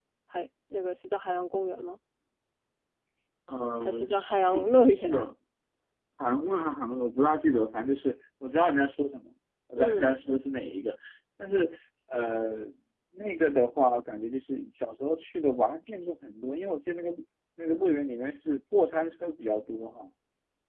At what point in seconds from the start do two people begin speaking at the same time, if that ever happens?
4 s

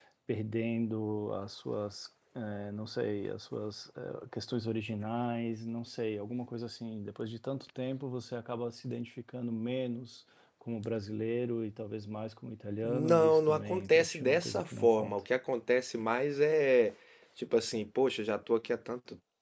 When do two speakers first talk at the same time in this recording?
13 s

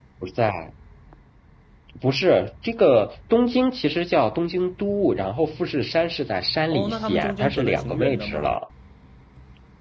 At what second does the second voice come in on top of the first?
7 s

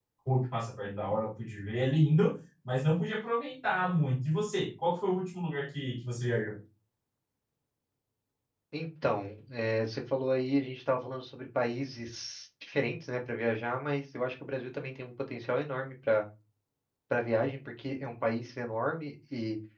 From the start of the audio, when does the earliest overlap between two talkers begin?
none

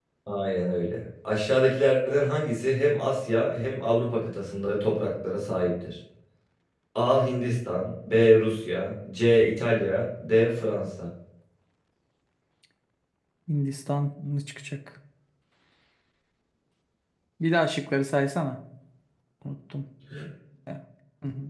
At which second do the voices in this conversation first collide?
none

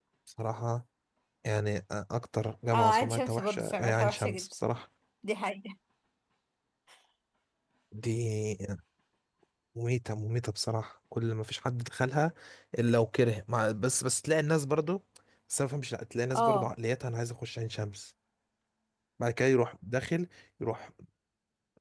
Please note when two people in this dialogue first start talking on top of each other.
3 s

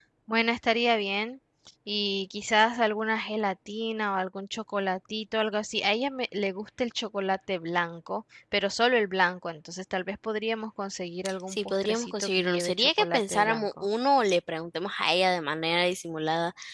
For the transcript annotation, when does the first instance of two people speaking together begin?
11 s

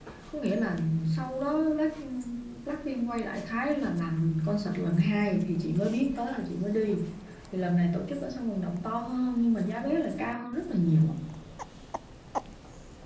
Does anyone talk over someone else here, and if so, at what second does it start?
none

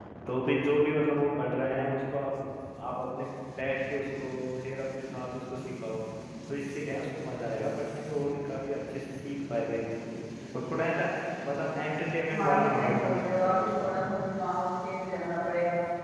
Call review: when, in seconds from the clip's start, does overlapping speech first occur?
12 s

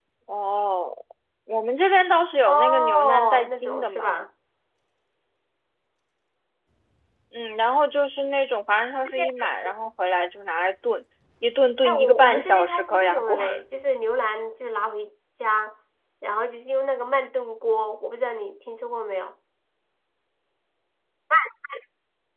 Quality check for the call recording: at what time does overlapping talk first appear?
2 s

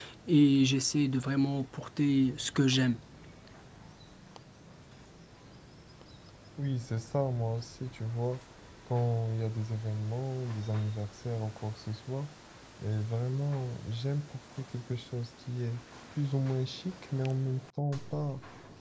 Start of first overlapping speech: none

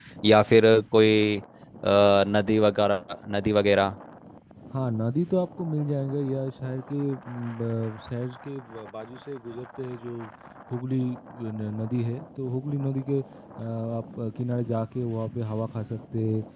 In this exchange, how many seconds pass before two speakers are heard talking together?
none

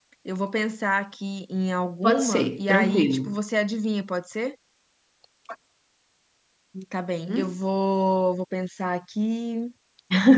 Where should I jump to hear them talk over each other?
2 s

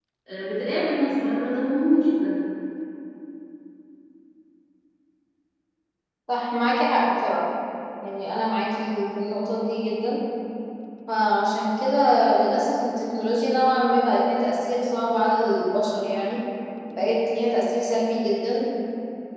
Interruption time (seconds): none

